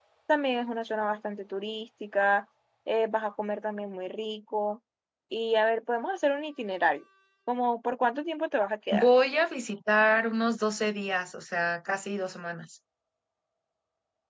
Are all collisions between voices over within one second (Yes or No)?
Yes